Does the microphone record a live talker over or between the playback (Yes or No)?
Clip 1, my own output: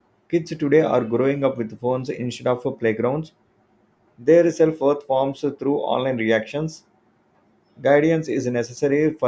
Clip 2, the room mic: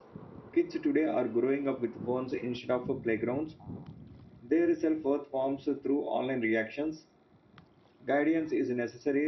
No